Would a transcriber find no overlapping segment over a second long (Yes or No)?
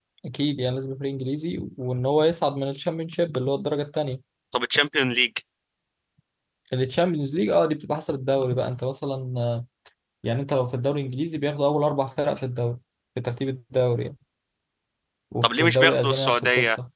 No